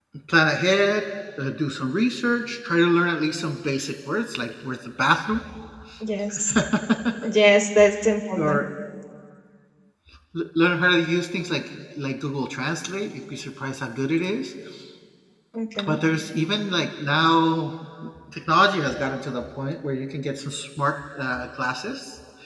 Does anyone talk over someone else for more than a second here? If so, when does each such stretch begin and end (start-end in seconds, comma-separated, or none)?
none